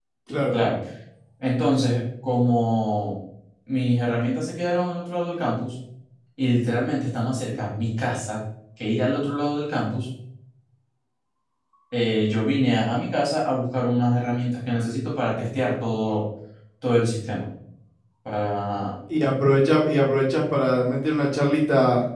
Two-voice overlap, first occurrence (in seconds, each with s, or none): none